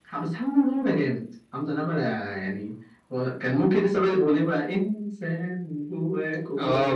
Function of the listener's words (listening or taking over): taking over